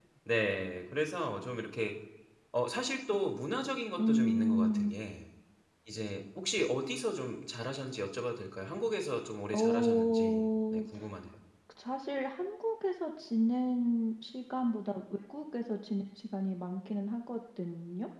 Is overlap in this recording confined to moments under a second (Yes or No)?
No